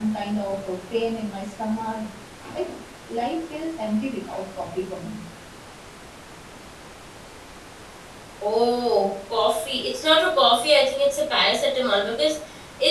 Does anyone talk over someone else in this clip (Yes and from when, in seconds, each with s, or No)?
No